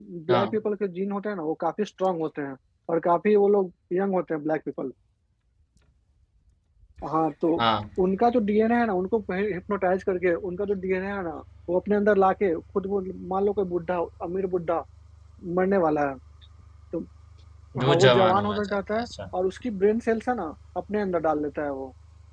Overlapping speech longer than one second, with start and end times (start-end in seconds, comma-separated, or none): 17.8-19.1